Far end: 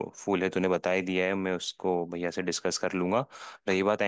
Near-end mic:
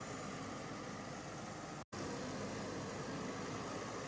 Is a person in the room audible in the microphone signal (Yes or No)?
No